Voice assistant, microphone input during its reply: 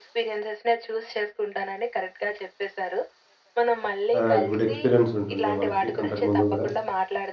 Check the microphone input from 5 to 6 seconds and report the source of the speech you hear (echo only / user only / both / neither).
both